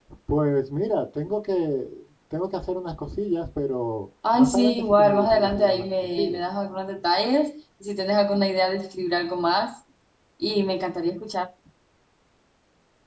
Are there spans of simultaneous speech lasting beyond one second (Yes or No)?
Yes